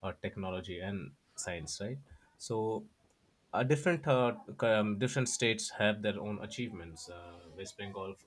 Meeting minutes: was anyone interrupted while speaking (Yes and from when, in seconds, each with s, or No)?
No